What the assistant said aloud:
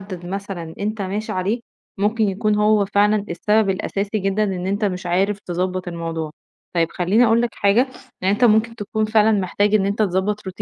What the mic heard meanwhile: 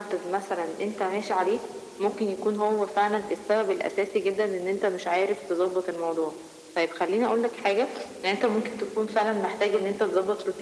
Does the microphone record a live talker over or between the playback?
No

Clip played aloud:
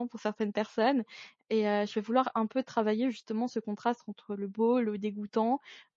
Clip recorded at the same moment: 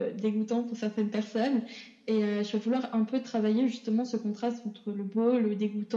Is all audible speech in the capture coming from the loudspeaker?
Yes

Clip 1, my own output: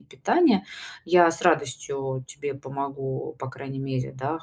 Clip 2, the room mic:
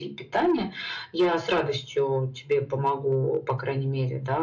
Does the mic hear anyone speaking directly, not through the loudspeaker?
No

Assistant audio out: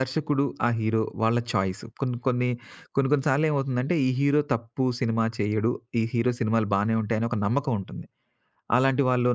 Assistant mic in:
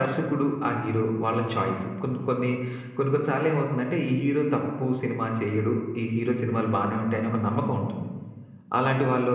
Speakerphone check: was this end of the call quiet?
Yes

